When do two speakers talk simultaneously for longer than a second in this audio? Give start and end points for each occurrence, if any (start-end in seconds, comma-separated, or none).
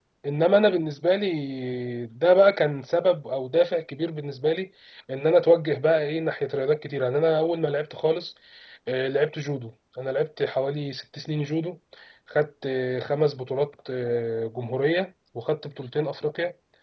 none